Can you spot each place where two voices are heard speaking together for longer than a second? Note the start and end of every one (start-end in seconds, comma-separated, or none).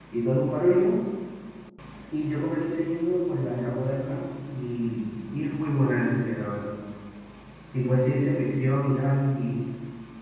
none